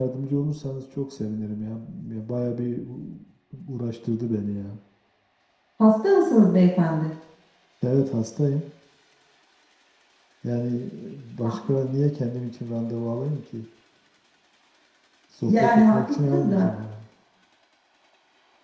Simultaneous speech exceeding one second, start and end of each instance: 15.4-16.7

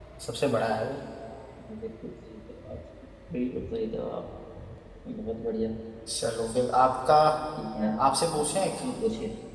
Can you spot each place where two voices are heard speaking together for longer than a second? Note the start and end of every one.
none

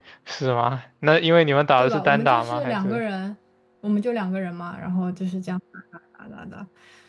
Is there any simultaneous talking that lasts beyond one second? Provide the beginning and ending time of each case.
1.8-3.0

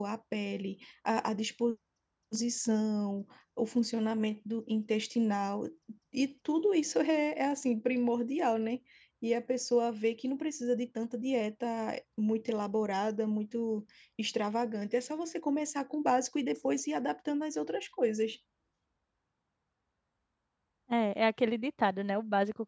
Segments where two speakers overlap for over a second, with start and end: none

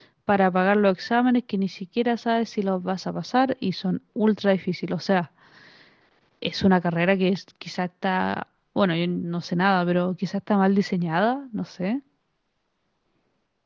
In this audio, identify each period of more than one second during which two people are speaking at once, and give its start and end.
none

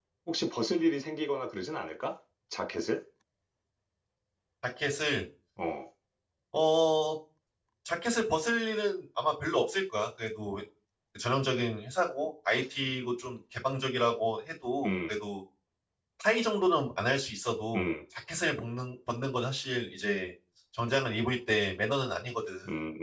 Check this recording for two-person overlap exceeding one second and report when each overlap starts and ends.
none

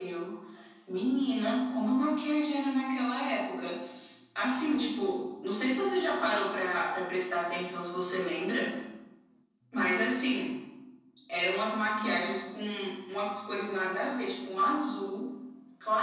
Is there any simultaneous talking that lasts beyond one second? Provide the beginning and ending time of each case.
none

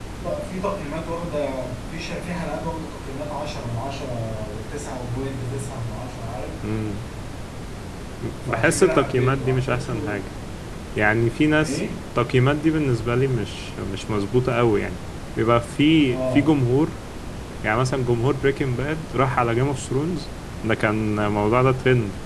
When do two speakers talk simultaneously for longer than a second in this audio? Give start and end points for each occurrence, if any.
8.4-10.2

